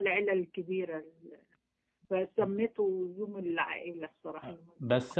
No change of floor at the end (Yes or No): No